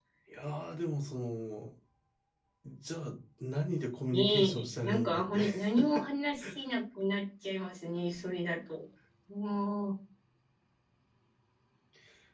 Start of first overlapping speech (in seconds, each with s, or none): 4.1 s